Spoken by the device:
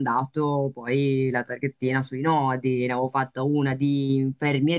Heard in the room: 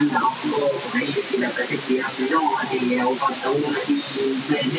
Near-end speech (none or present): none